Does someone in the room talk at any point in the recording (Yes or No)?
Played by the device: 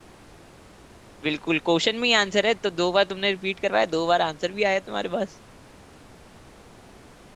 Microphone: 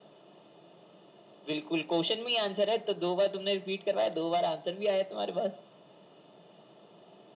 No